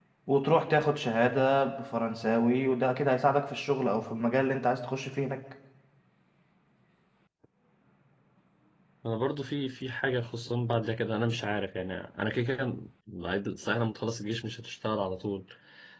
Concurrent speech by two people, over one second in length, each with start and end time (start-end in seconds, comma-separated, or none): none